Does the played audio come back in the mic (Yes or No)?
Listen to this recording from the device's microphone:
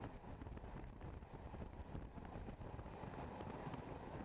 No